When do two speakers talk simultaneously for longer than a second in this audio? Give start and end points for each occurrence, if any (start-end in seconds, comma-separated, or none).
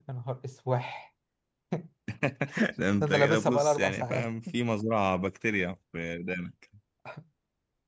3.0-4.3